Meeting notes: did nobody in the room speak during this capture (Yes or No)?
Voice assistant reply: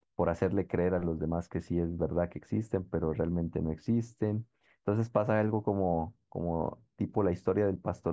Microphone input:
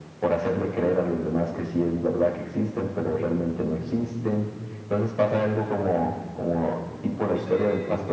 No